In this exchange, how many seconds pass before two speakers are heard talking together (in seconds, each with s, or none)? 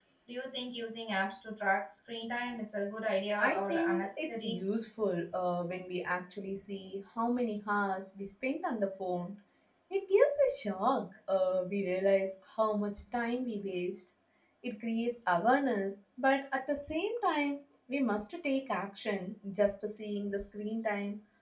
3.4 s